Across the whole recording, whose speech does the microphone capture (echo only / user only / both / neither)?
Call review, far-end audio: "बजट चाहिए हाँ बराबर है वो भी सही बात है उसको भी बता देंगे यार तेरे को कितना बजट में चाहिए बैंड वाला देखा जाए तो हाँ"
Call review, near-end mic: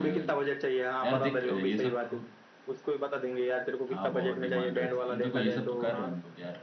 both